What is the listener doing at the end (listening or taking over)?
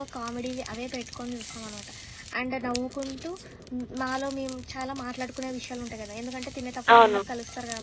listening